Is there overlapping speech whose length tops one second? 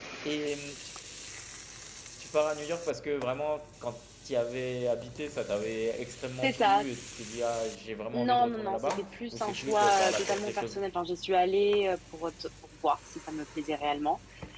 Yes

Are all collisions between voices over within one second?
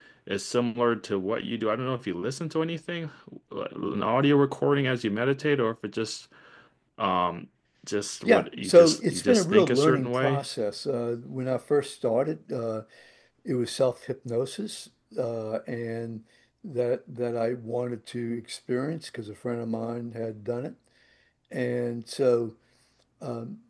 No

